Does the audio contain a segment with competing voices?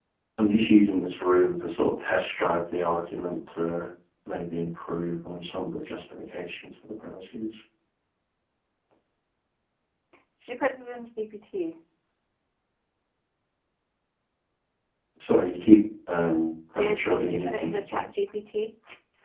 Yes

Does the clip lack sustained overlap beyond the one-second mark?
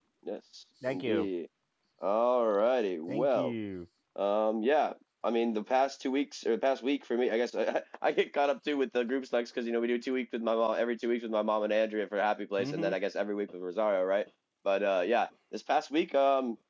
Yes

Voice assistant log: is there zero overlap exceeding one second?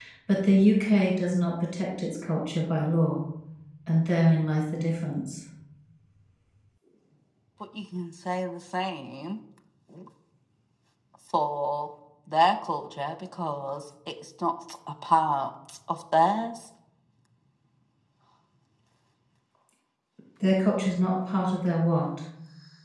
Yes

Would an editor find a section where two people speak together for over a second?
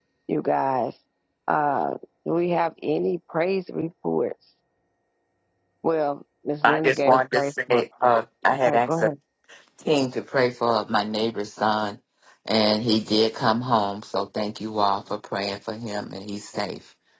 Yes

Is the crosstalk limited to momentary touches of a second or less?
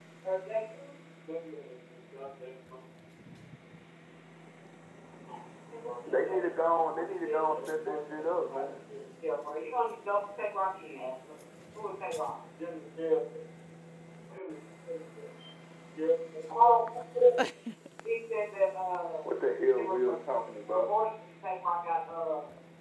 No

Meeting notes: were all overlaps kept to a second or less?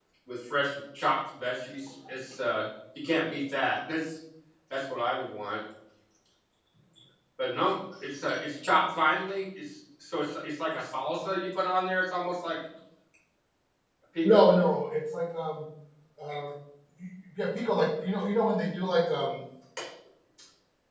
Yes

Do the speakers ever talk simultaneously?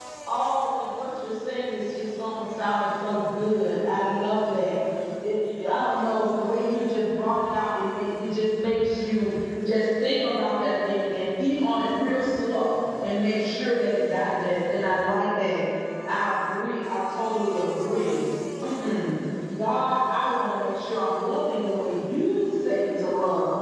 No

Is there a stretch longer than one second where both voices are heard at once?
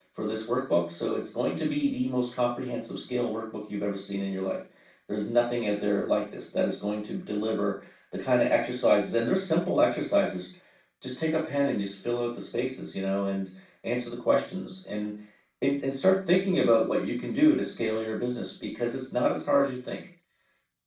No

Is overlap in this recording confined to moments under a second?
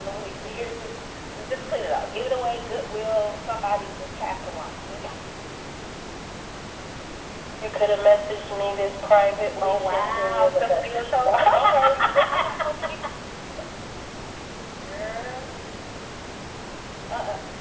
No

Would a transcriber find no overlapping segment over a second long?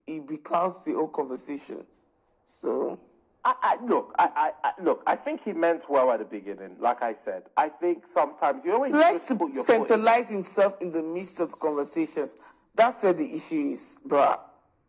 No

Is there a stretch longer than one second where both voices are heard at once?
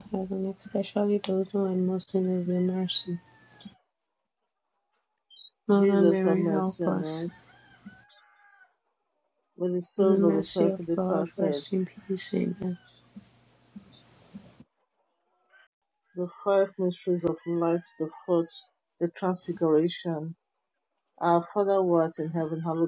Yes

